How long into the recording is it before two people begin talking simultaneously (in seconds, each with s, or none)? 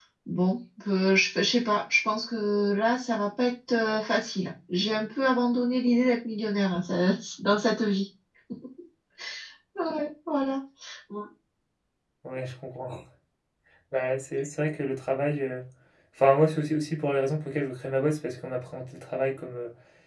none